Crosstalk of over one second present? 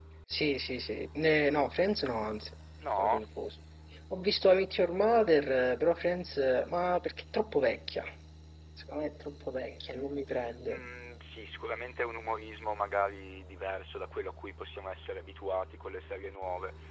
No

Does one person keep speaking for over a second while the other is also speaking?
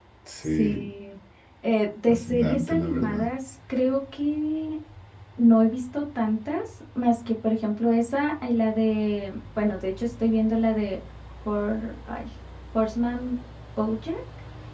Yes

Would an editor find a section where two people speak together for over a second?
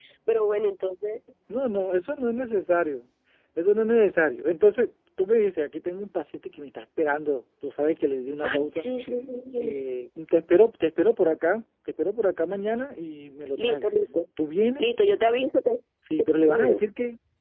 No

